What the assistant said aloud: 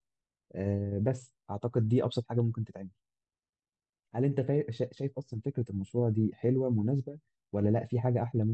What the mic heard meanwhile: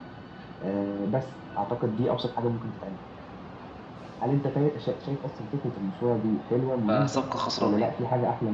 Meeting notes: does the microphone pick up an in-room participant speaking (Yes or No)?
Yes